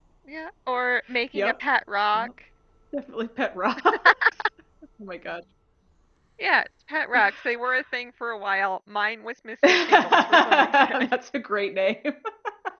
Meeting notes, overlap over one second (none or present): present